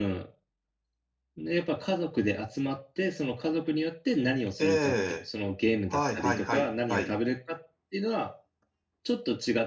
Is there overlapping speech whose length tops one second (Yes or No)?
Yes